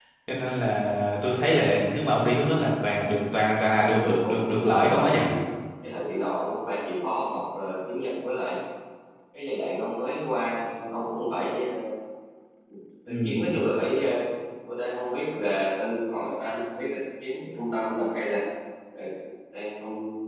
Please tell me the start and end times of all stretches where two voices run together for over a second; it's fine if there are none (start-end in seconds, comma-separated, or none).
3.5-5.1